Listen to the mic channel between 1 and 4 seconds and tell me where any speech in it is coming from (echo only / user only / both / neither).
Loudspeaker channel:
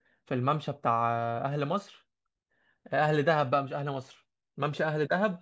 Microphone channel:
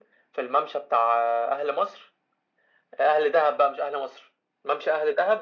echo only